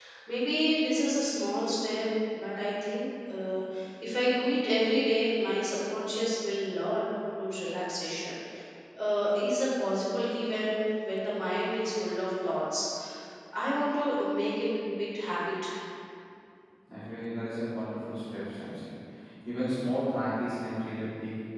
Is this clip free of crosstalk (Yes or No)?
Yes